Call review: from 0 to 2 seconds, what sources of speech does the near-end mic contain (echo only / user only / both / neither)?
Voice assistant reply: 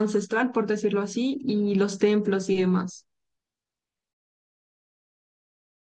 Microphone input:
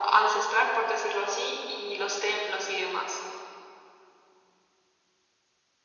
echo only